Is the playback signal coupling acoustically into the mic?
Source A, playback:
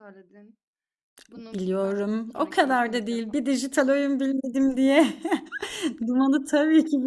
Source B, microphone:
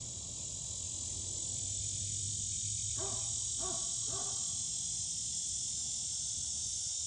No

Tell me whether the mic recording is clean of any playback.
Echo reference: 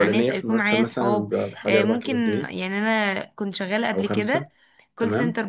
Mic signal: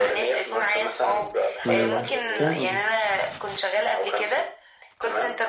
No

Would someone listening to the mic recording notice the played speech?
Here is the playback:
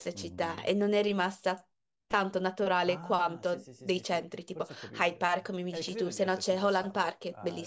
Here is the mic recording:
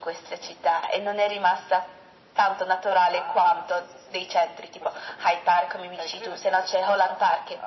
Yes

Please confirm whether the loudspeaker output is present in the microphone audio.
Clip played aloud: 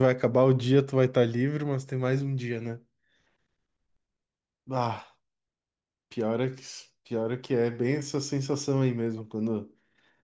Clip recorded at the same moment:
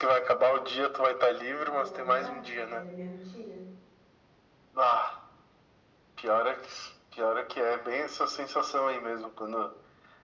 Yes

